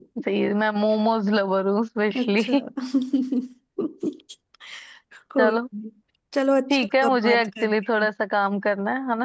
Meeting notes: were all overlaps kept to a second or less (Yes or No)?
No